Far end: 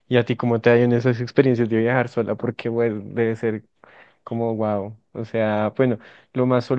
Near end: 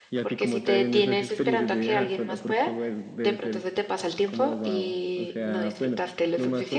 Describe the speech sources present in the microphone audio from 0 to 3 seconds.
both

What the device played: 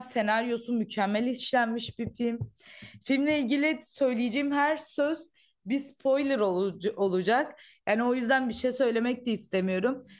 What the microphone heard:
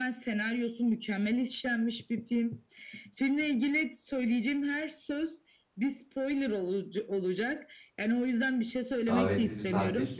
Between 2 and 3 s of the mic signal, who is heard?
echo only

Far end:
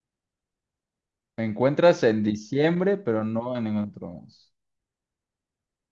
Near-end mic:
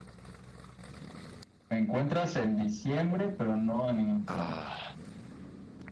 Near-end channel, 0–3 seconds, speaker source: echo only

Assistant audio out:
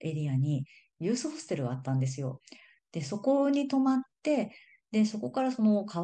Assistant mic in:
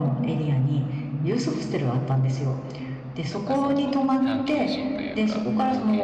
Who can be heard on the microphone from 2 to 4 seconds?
both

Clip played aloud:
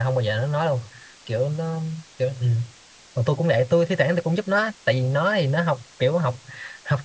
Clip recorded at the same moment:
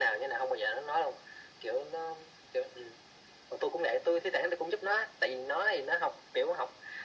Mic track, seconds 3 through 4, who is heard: echo only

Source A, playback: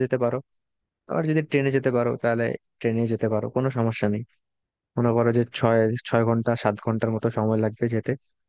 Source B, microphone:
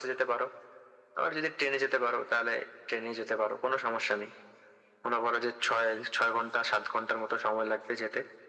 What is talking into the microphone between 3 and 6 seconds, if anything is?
echo only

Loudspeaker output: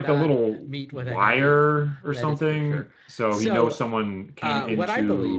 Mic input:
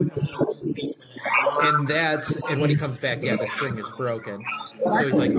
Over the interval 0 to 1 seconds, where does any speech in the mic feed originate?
echo only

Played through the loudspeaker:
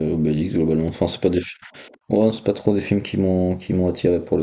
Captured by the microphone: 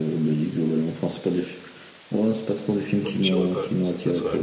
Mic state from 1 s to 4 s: both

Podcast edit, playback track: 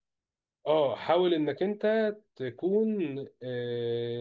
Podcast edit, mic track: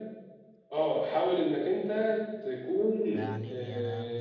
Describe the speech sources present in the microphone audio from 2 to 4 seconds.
both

